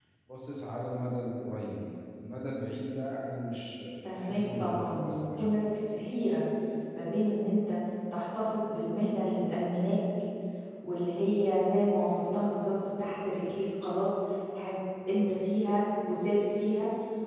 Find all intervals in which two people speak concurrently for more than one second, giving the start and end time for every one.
4.2-5.6

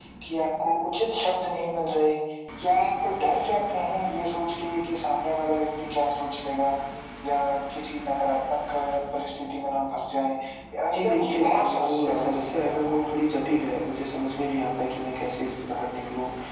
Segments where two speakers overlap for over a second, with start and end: 10.9-13.1

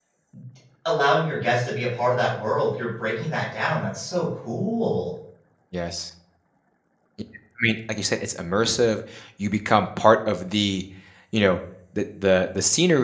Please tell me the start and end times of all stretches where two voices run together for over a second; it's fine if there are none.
none

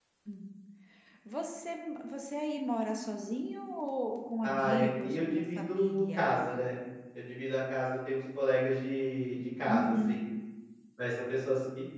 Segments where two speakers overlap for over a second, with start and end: 4.4-6.3

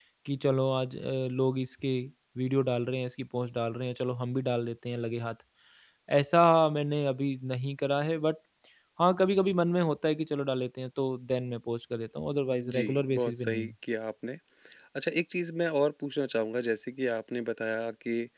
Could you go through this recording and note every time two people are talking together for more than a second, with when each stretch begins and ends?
12.4-13.7

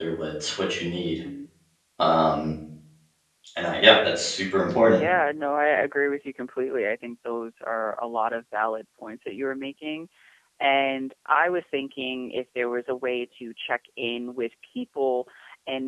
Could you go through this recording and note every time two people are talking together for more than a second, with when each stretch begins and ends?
none

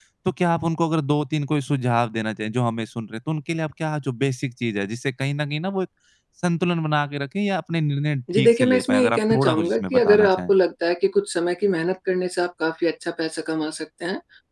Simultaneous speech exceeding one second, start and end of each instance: 8.3-10.5

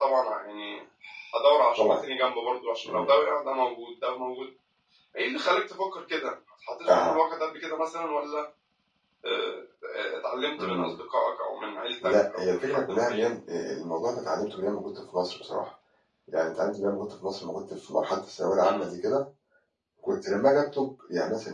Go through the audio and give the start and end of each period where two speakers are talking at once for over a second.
12.0-13.3

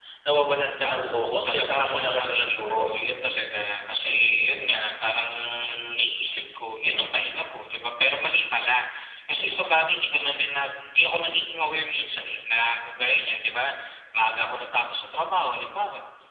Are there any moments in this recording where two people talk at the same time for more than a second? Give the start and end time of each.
0.8-2.9

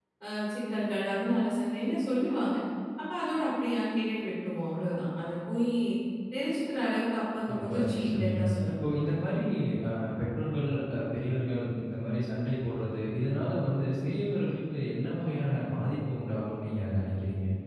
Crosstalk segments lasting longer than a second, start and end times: 7.6-8.8

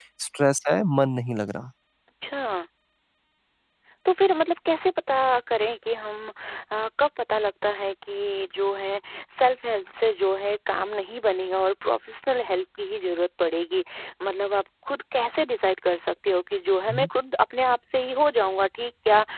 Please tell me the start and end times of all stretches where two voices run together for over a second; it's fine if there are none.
none

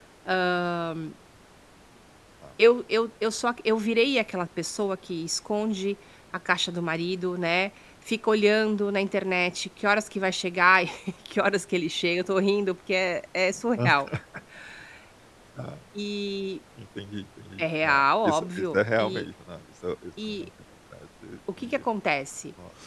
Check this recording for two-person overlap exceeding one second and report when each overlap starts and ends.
17.6-19.3

